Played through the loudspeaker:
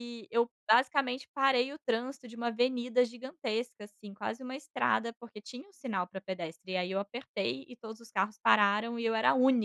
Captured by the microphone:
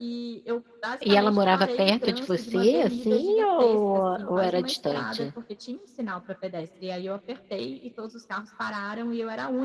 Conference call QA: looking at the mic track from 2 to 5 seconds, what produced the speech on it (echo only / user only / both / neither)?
both